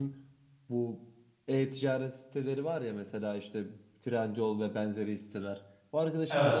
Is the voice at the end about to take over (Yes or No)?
No